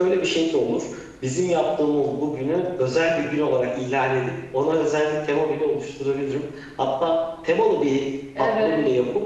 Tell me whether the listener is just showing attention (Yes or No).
Yes